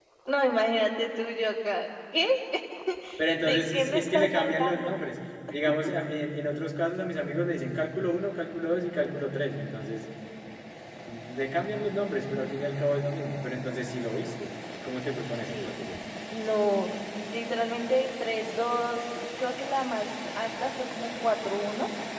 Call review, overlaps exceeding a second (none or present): present